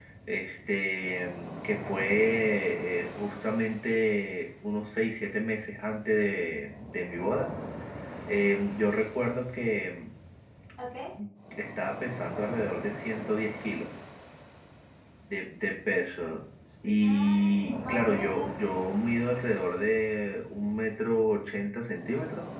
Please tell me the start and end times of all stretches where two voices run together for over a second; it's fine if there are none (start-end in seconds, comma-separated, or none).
17.0-18.5